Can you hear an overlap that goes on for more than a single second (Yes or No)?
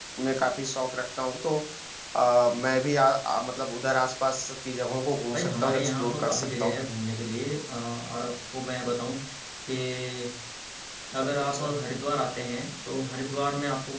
Yes